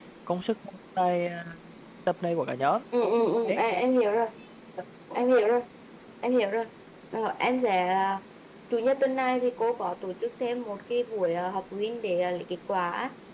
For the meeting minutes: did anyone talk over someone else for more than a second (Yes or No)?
No